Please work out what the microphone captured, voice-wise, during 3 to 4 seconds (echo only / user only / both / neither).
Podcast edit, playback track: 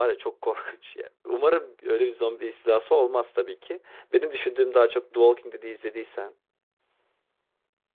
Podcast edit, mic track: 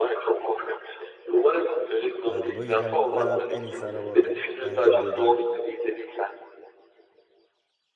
both